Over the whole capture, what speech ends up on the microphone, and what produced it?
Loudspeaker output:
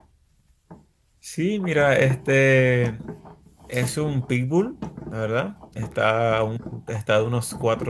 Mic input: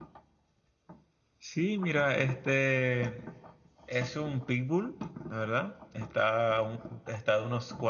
echo only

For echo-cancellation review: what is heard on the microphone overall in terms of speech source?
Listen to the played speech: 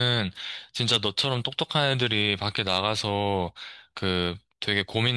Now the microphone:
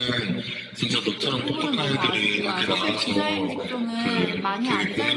both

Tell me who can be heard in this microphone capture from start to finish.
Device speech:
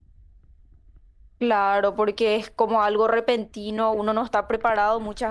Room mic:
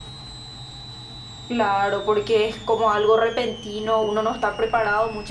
echo only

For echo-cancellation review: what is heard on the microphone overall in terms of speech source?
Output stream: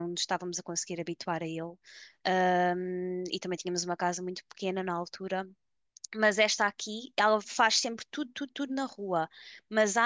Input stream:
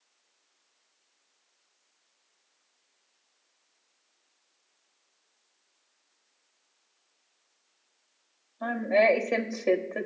user only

